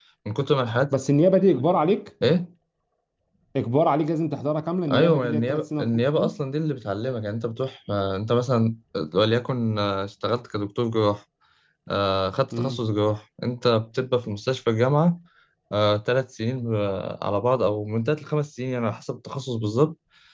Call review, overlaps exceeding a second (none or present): present